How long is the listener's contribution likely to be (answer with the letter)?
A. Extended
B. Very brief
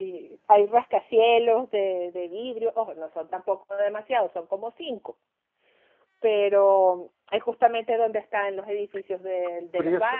A